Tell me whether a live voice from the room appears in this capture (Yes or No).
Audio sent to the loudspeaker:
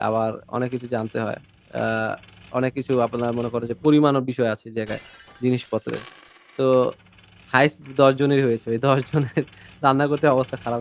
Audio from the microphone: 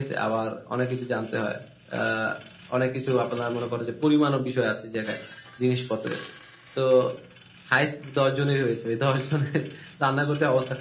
No